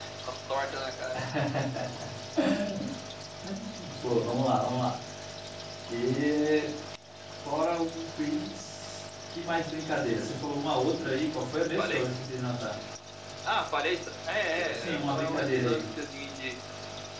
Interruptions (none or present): present